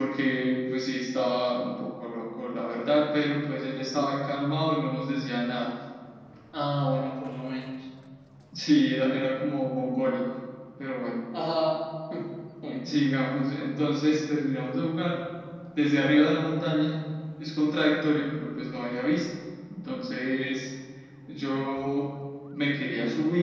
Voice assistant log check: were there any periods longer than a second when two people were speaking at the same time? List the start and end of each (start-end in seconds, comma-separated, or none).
none